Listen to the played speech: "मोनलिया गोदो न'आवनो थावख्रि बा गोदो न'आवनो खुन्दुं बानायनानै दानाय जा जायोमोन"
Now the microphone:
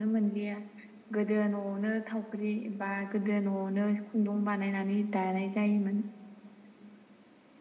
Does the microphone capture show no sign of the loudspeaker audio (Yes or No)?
No